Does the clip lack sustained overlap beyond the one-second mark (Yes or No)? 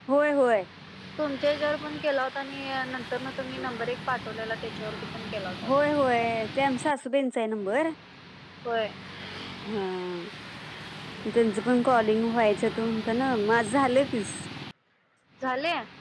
Yes